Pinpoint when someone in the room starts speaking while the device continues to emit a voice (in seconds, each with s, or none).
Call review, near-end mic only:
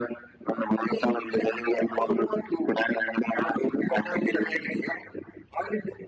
none